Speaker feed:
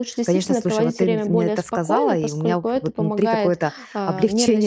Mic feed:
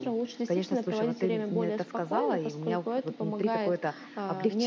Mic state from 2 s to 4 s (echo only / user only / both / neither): echo only